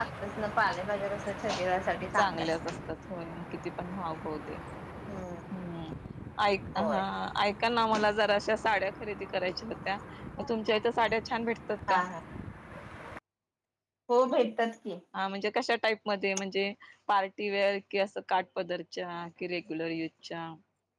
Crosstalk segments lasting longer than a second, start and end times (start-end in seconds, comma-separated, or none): none